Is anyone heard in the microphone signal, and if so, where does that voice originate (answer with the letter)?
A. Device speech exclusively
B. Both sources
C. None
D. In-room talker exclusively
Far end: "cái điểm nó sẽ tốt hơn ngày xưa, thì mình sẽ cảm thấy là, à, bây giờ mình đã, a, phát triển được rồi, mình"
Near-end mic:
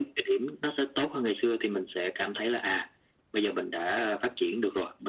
A